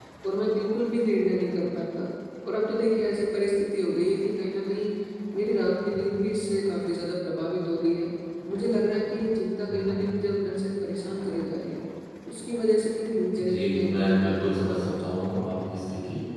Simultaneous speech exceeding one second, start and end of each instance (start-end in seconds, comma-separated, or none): 13.4-15.3